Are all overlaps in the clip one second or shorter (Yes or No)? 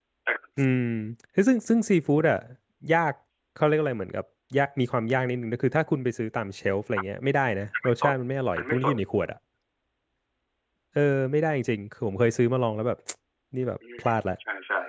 Yes